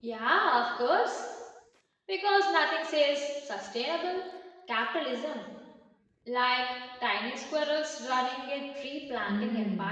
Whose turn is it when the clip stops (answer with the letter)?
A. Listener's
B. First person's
A